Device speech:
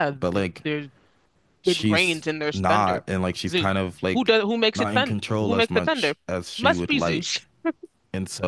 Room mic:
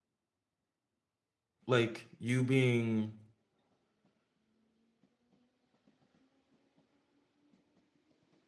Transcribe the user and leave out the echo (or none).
like you being